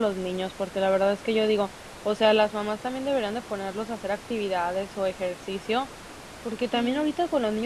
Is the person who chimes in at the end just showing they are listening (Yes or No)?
Yes